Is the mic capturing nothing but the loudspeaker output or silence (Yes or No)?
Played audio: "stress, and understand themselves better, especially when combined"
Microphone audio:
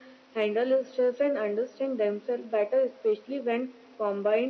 Yes